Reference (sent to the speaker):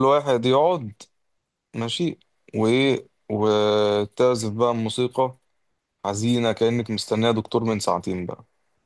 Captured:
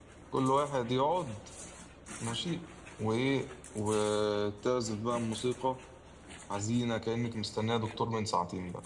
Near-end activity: none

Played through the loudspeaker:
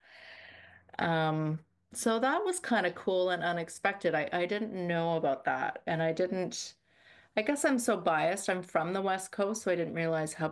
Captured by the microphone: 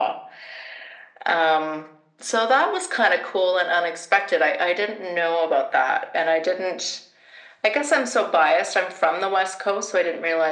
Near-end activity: none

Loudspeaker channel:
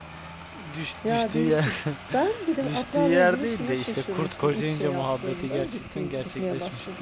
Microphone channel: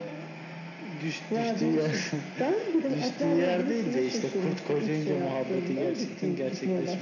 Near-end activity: none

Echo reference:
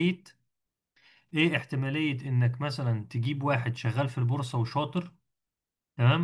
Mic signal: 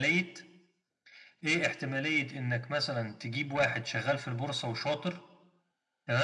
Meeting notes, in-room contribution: none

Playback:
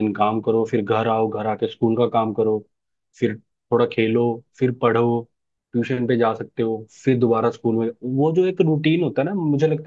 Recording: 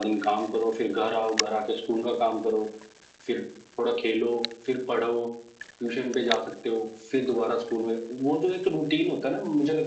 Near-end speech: none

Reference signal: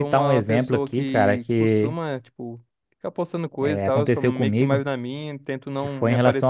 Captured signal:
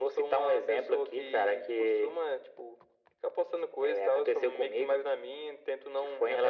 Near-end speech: none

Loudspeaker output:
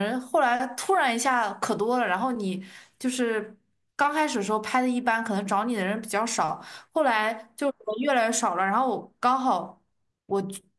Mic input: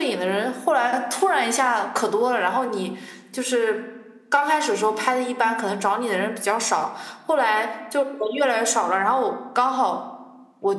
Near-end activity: none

